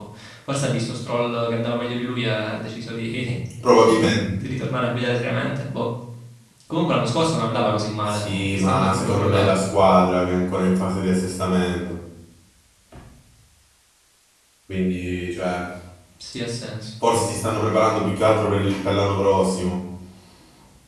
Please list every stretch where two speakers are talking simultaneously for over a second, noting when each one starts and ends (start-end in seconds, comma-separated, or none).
8.1-9.6